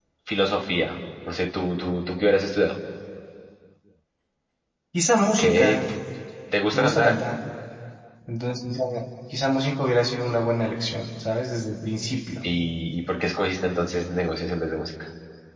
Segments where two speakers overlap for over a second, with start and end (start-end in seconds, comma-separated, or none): none